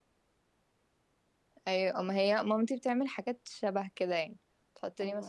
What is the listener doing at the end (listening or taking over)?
listening